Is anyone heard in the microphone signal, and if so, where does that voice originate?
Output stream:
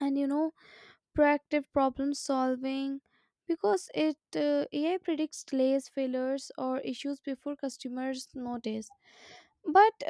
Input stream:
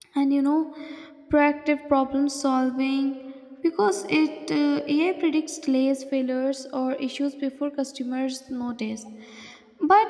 echo only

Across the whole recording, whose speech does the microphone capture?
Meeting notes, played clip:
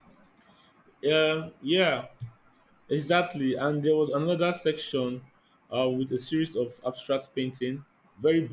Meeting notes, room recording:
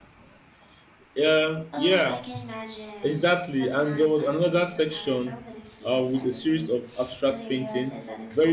both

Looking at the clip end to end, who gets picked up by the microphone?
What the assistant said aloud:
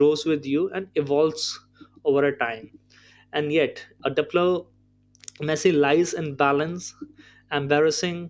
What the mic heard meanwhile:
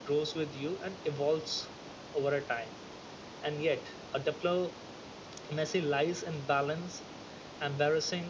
echo only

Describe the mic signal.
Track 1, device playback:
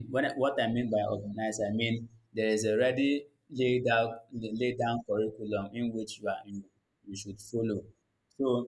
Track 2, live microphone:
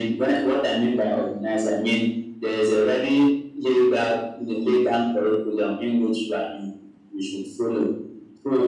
echo only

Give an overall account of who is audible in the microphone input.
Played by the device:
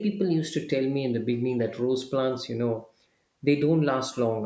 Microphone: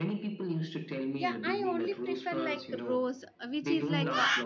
both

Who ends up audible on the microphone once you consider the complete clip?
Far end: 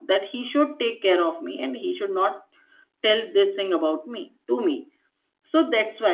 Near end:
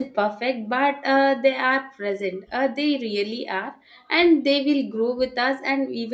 user only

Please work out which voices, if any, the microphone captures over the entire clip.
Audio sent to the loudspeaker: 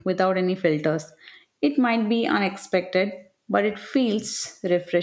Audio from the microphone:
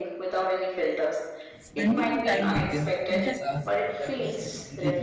both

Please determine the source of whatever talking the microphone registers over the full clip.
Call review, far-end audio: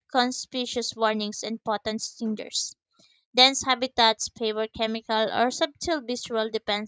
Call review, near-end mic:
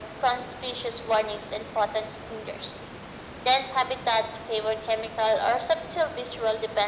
echo only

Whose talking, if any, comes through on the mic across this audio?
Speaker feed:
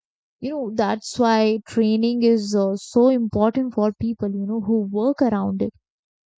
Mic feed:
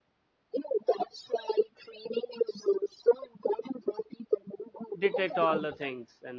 both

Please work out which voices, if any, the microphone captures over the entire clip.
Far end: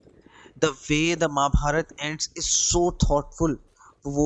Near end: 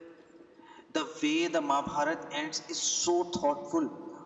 echo only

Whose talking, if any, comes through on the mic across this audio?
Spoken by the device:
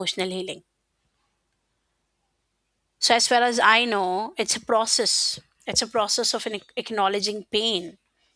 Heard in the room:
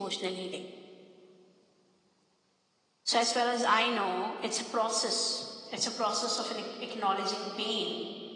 echo only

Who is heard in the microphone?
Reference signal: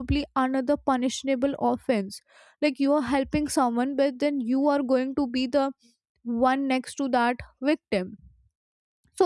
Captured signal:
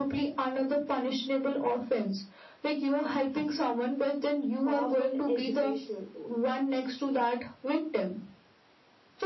both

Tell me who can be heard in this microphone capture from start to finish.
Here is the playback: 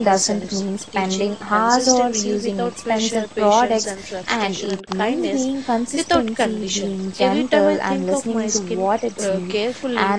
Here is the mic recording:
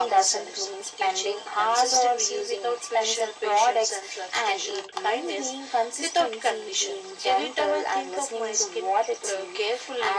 echo only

